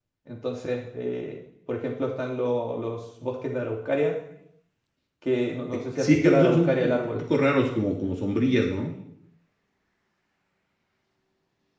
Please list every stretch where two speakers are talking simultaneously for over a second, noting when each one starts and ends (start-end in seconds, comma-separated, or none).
5.7-7.2